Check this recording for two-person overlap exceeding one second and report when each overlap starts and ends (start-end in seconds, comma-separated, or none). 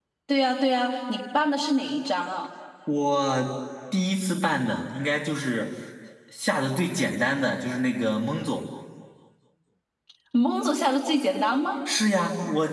none